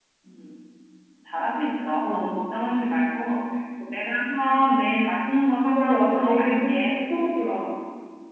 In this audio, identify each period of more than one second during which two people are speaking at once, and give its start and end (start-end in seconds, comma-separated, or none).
5.7-7.0